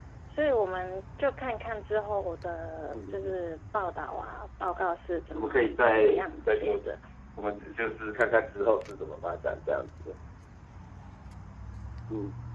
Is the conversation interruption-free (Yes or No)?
No